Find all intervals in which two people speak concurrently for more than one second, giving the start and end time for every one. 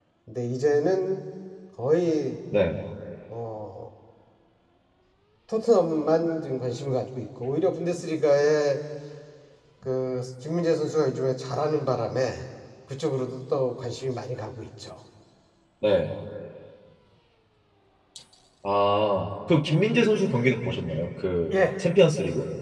none

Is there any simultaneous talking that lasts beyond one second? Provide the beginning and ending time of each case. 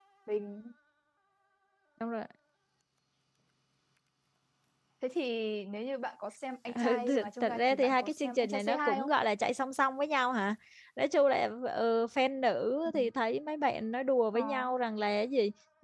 6.7-9.1

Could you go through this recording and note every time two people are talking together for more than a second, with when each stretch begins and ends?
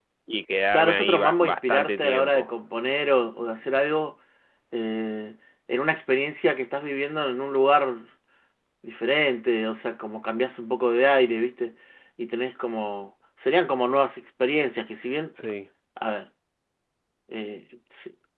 0.7-2.5

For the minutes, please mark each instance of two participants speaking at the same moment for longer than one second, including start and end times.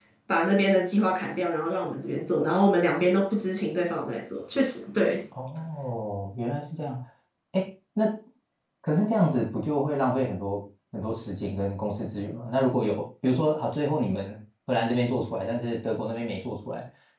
none

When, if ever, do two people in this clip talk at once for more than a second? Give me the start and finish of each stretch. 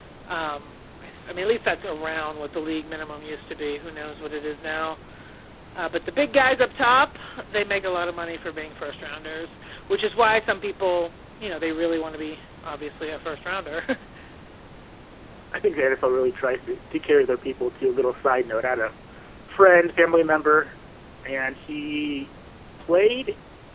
none

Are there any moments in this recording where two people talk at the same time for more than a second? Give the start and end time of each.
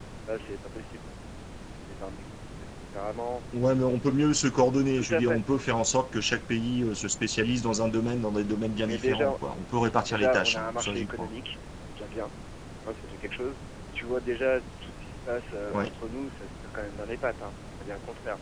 10.1-11.3

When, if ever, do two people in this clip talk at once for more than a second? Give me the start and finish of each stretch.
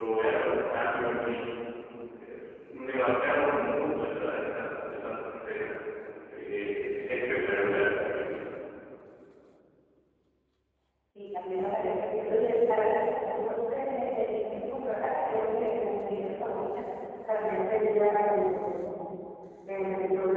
none

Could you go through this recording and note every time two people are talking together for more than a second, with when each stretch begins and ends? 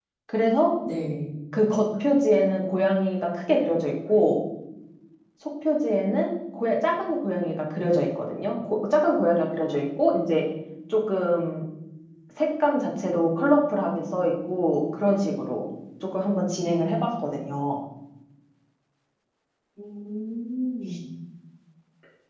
none

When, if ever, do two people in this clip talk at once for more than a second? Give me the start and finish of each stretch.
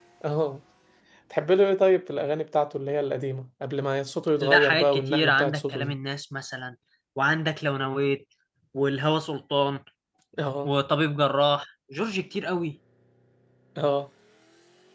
4.4-5.9

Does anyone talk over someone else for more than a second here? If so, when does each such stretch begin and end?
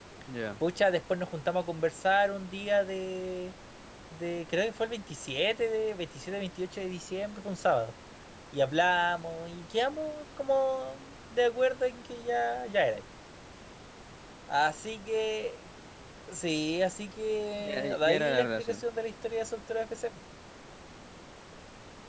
17.6-18.8

